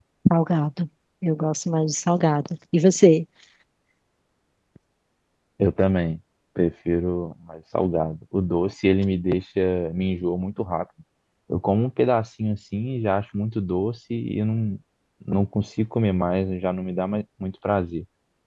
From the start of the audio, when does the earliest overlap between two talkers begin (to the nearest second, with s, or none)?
none